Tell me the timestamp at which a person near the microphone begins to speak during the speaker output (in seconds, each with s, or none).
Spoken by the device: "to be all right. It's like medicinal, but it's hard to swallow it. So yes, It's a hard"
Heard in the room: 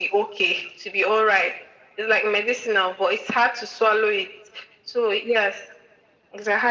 none